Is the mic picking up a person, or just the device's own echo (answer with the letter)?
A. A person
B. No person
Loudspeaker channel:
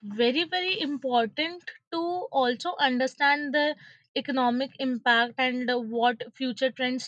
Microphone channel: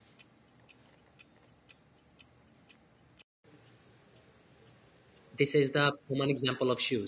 A